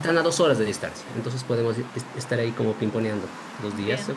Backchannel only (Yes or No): Yes